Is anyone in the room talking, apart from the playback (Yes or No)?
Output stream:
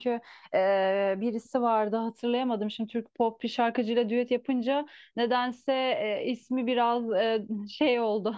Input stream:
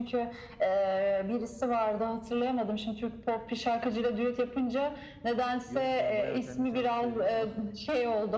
Yes